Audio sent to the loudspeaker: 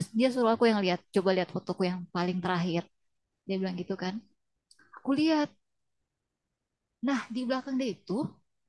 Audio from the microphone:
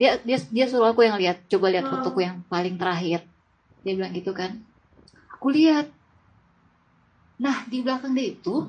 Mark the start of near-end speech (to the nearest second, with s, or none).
2 s